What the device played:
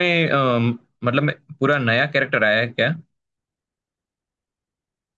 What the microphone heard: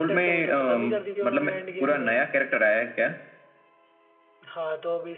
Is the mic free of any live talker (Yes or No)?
No